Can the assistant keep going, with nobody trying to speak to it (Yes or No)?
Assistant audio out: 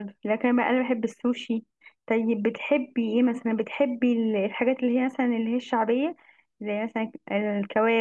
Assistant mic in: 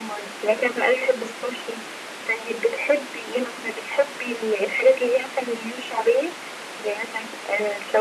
Yes